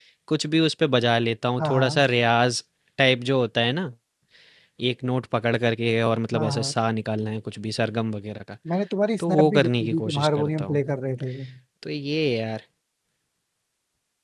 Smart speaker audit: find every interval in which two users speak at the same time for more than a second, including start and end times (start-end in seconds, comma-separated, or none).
9.2-10.8